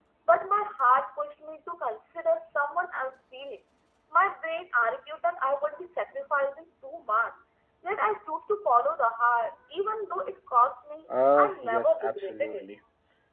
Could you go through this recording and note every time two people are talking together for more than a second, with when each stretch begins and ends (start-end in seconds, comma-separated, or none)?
11.3-12.6